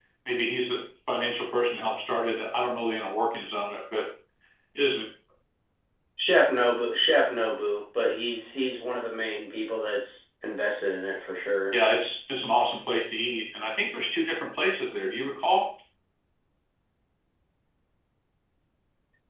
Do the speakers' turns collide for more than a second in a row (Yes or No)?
No